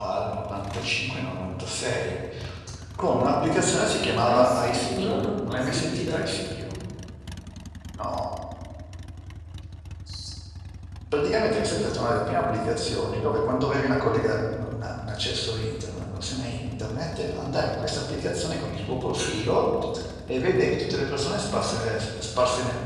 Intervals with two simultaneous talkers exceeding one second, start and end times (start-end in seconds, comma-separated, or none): 4.3-6.2